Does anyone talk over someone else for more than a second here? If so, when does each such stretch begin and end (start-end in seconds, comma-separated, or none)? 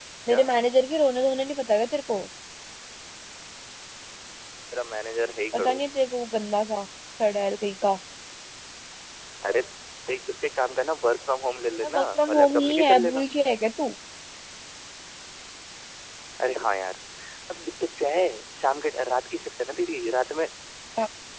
11.8-13.2